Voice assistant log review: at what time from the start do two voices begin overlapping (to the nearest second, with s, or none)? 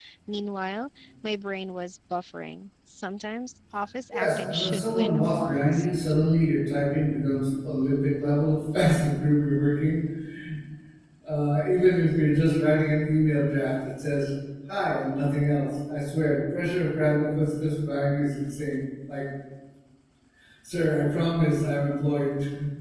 4 s